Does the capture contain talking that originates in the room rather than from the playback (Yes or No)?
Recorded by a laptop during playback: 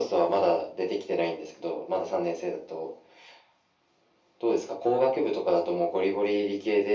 No